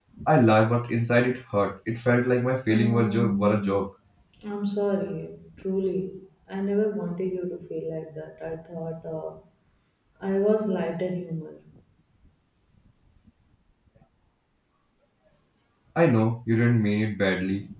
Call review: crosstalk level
present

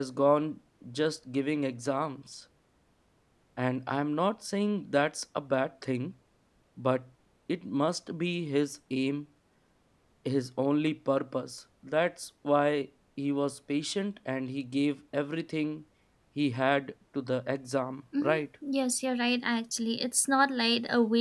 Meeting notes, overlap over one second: none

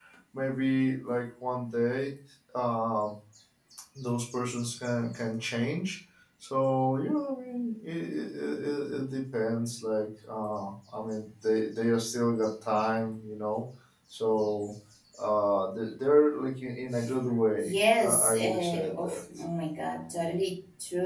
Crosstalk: present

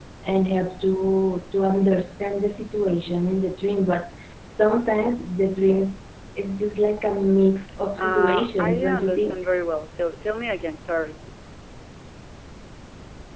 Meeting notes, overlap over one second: present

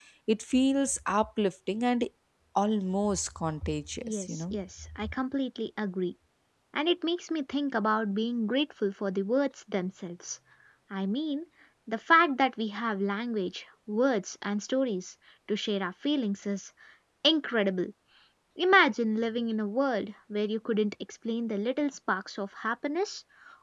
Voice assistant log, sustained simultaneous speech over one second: none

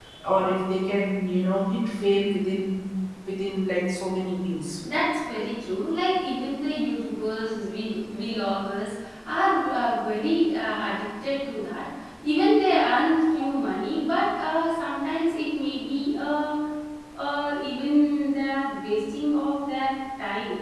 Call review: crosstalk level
none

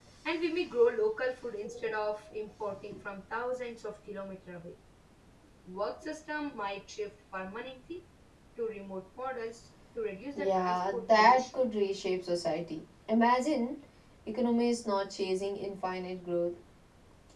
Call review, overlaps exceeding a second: present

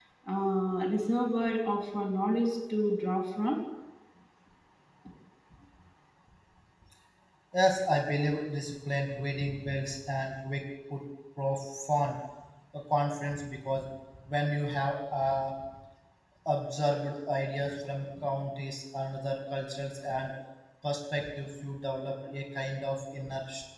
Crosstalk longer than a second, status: none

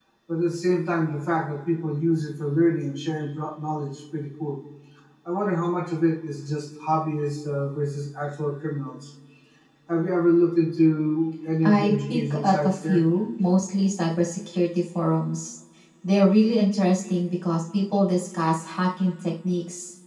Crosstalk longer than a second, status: present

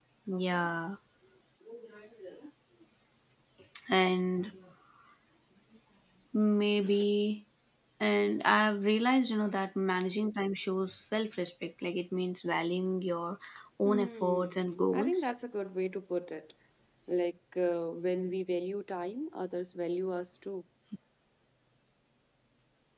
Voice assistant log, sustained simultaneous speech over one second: present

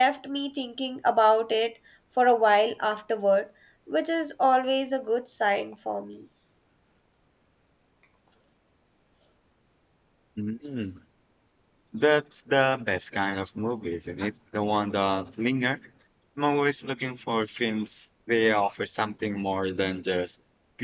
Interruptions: none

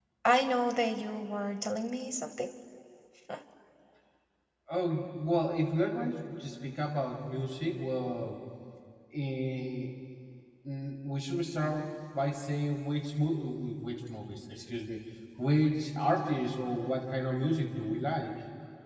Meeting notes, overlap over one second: none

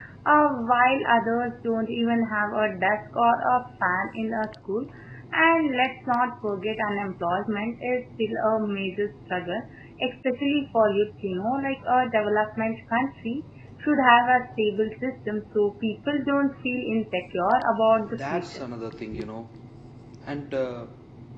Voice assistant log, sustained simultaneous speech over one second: none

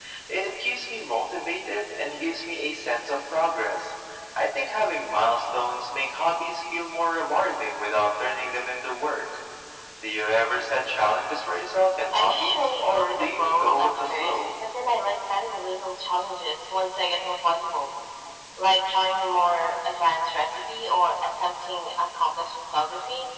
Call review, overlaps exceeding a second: present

